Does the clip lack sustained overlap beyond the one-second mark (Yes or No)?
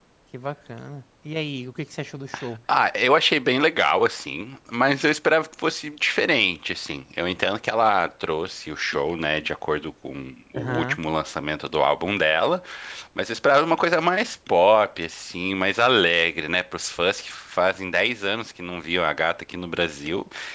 Yes